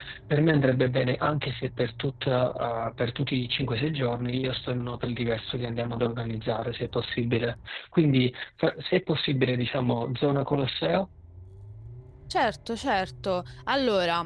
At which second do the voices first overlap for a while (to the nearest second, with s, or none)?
none